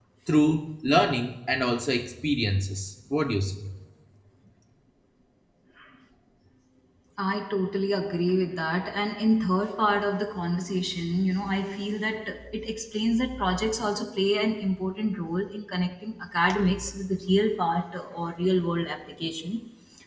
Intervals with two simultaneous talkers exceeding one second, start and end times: none

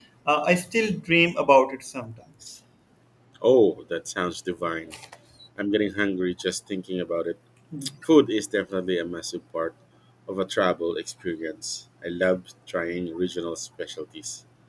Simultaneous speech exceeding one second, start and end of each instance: none

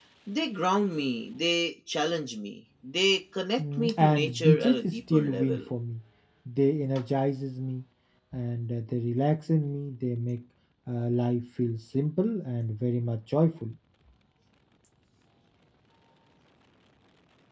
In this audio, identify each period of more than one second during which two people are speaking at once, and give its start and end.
3.6-5.6

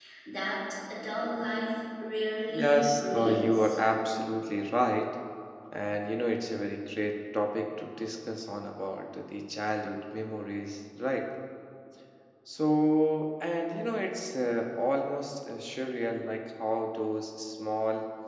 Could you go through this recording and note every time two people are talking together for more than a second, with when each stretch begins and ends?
2.5-3.8

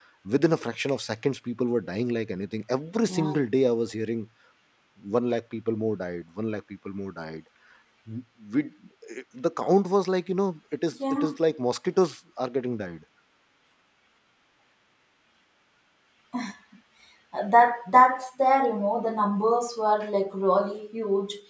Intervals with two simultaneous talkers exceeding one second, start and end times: none

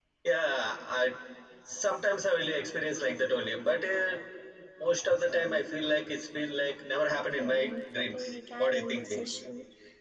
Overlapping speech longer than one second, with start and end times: 7.0-9.4

